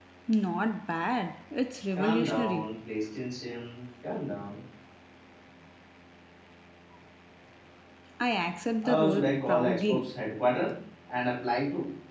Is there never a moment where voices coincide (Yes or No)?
No